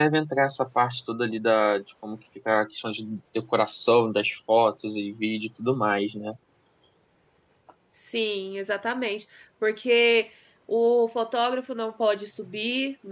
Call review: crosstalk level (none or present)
none